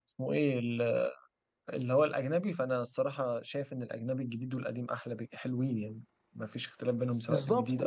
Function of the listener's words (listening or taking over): taking over